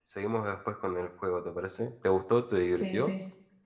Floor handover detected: Yes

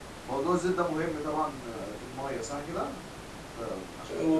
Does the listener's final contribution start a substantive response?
Yes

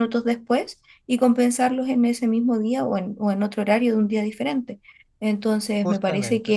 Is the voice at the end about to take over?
No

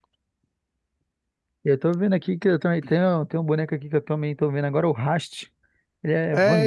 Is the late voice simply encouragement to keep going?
No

